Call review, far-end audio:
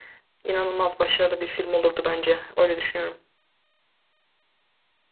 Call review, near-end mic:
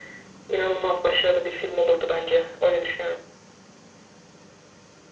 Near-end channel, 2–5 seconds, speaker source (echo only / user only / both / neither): echo only